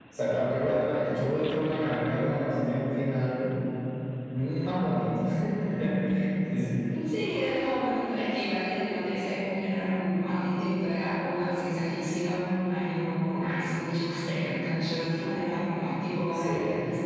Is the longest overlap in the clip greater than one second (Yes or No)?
No